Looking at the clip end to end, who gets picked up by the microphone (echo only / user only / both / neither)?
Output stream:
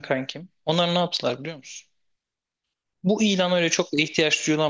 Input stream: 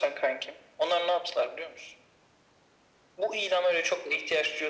echo only